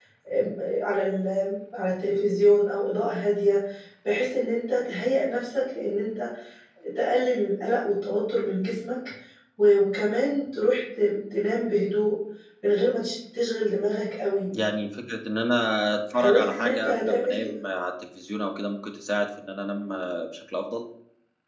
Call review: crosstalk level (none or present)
present